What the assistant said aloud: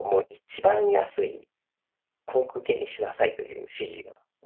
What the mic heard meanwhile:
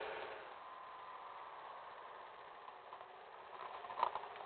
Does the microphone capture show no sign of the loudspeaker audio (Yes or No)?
Yes